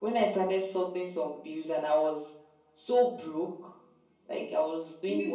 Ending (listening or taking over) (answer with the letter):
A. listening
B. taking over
A